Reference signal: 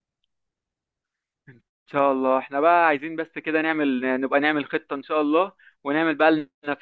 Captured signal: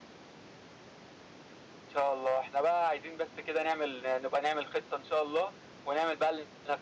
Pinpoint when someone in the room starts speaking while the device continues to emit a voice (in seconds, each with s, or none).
none